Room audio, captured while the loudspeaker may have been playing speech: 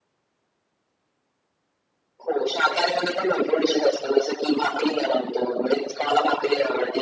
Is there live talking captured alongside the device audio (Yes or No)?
No